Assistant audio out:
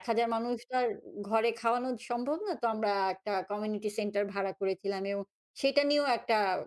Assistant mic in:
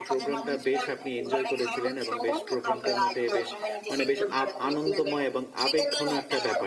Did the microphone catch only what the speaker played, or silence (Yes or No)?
No